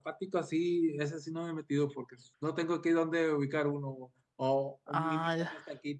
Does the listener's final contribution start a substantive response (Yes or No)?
No